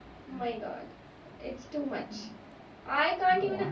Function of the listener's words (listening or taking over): listening